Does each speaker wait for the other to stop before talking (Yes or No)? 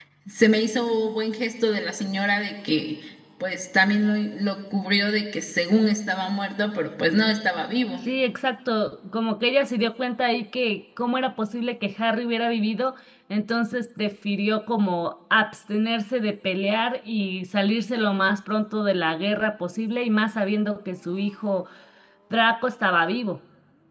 Yes